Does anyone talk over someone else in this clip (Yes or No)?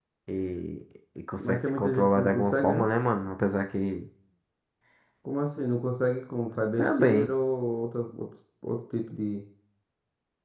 Yes